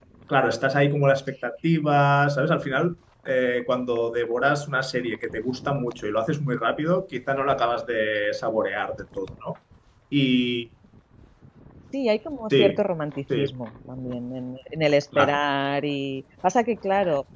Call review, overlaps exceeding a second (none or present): none